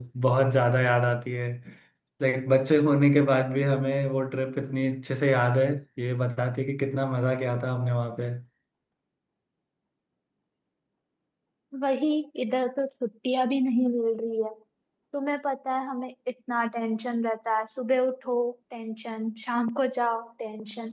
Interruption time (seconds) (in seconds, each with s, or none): none